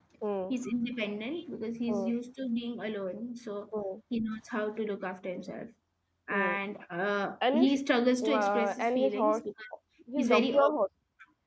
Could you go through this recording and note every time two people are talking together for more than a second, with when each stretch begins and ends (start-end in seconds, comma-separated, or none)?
8.2-9.4